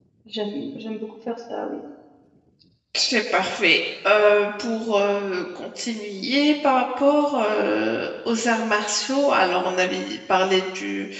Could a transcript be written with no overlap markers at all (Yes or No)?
Yes